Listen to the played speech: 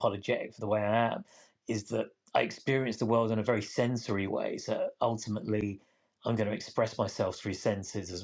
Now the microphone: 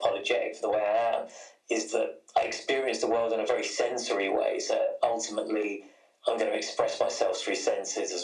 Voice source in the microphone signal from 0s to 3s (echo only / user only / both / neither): echo only